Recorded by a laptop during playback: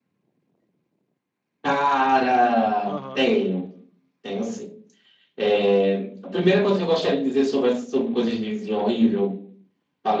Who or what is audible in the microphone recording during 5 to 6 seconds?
echo only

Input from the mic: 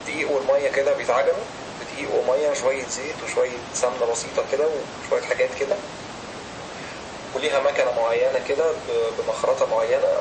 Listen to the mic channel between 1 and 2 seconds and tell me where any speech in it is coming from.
echo only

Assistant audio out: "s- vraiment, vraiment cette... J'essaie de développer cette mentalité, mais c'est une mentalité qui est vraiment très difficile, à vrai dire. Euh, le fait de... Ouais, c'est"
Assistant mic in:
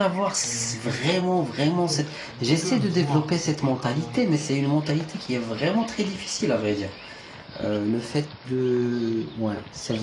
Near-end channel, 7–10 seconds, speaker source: echo only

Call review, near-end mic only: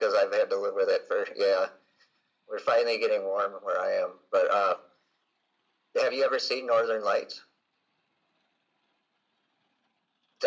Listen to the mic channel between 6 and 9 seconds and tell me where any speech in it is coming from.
echo only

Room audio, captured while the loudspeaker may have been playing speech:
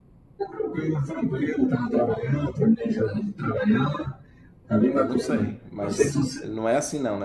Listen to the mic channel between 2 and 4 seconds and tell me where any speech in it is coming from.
echo only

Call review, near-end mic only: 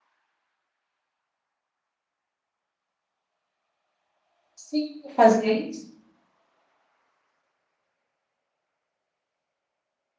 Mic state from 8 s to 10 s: neither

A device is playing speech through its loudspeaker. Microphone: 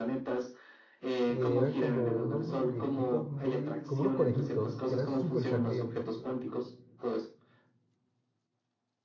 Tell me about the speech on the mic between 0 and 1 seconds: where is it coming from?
echo only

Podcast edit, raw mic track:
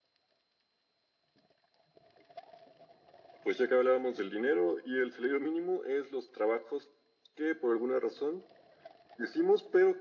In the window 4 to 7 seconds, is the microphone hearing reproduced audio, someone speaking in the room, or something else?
echo only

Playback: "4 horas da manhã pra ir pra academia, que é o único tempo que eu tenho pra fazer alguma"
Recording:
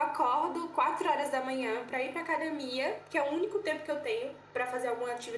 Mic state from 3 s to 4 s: echo only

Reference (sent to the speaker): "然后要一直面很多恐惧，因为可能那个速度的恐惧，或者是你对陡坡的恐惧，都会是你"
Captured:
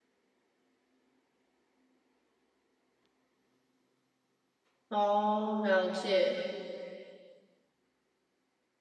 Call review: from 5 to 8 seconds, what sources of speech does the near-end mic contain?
user only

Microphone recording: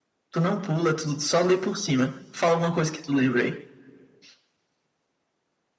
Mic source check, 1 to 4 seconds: echo only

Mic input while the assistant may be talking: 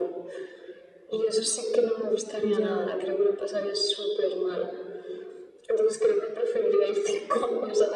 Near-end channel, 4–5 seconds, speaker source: echo only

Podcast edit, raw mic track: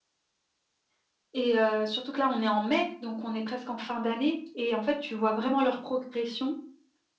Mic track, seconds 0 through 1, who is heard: neither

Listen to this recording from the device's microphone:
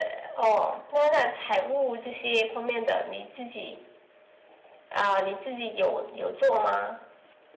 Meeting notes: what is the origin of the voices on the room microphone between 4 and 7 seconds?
echo only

